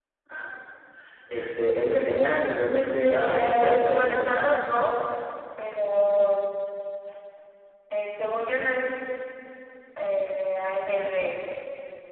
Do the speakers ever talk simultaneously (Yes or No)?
Yes